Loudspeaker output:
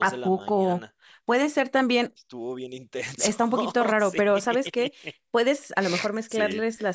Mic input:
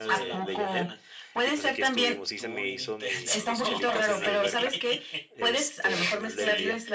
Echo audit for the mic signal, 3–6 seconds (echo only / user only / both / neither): both